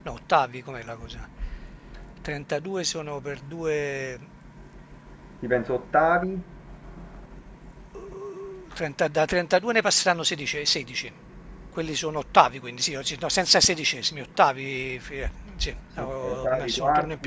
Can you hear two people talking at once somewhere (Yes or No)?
Yes